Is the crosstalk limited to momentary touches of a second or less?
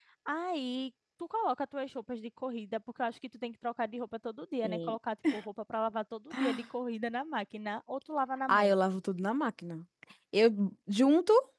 Yes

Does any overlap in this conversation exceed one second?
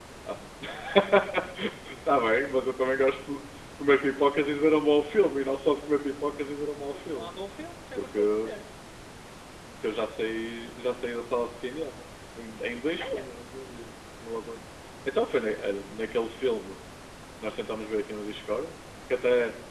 No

